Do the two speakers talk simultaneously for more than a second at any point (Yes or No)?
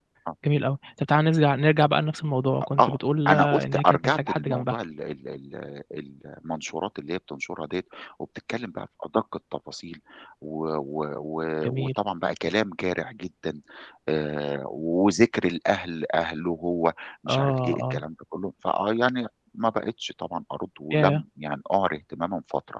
Yes